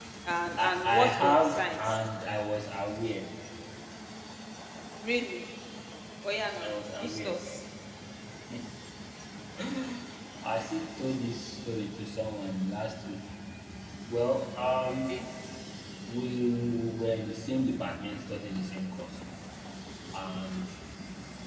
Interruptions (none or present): present